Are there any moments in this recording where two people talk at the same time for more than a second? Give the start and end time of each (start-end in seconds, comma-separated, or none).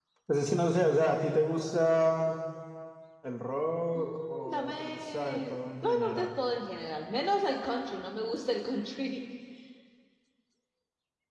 3.9-6.3